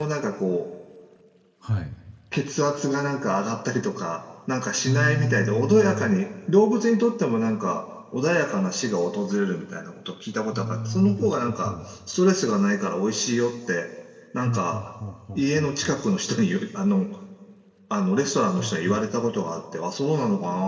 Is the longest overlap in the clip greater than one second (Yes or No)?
Yes